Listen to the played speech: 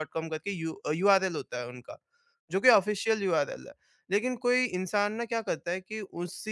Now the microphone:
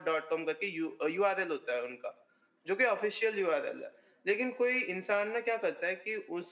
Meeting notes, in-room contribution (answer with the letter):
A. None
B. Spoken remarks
A